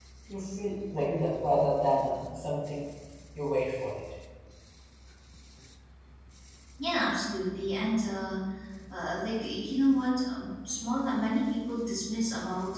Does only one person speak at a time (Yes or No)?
Yes